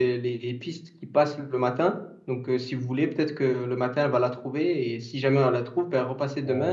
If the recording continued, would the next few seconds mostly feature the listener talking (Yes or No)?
Yes